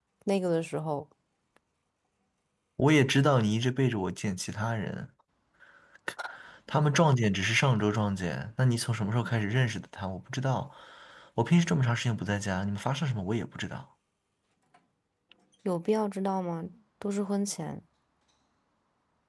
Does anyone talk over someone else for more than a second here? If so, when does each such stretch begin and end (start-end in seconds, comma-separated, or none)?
none